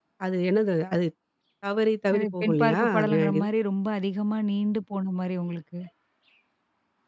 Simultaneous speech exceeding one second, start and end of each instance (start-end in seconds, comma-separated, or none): 2.1-3.5